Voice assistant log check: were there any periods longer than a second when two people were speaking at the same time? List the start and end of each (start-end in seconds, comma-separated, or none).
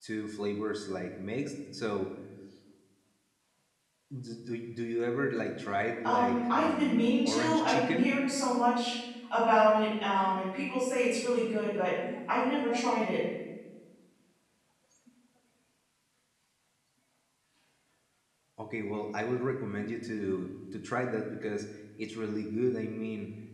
6.0-8.1